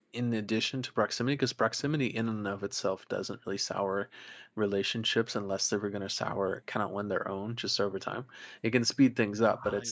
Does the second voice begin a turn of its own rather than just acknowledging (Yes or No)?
No